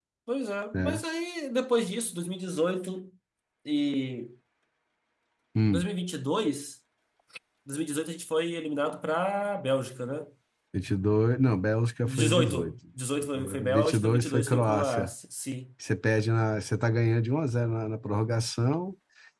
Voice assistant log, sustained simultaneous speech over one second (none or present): present